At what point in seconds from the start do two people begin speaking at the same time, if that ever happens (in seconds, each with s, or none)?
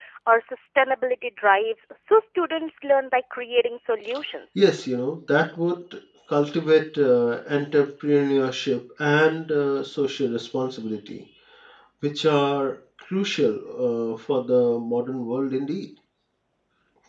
none